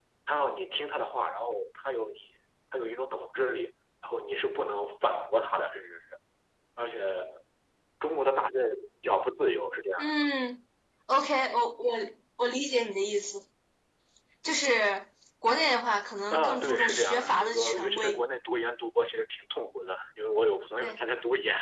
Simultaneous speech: Yes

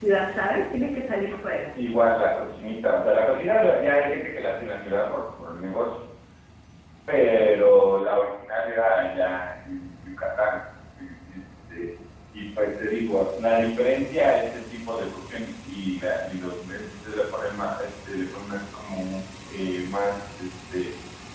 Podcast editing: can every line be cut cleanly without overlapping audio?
Yes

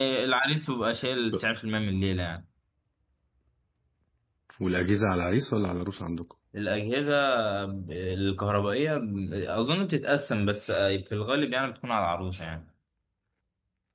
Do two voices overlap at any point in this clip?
No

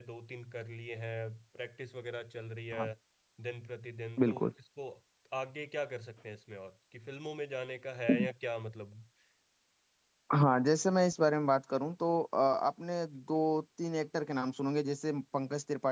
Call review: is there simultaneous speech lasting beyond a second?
No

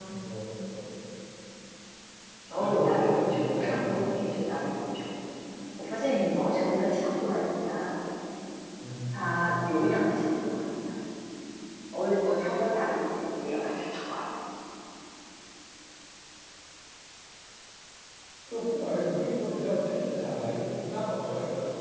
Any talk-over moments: Yes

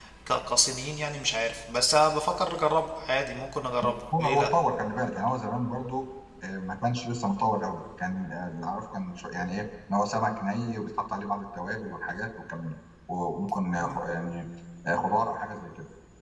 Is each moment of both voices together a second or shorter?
Yes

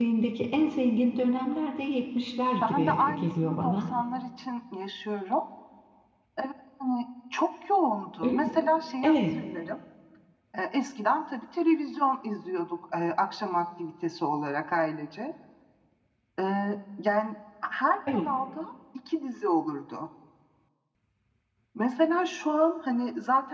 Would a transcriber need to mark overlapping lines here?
Yes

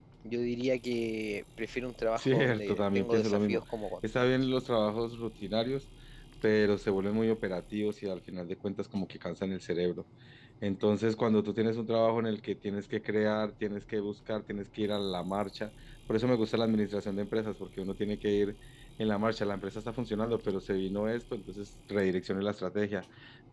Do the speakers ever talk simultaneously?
Yes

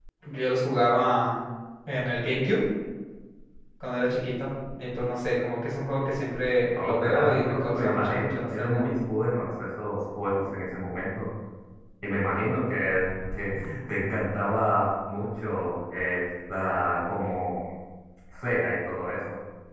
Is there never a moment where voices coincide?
No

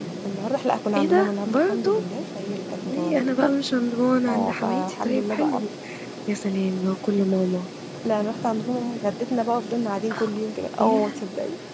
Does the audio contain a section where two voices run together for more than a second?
Yes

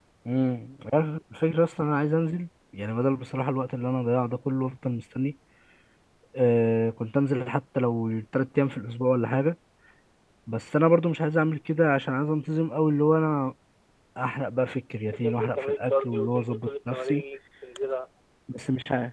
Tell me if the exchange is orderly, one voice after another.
No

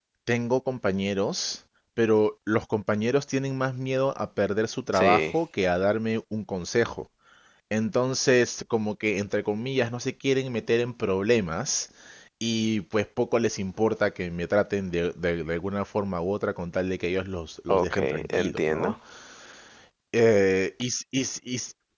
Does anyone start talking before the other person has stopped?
Yes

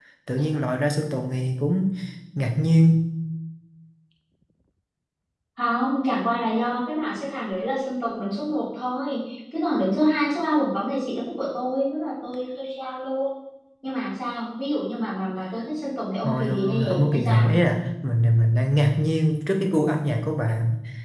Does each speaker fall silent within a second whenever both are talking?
No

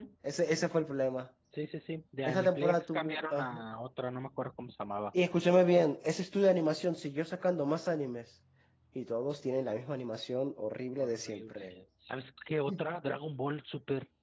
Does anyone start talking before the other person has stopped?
Yes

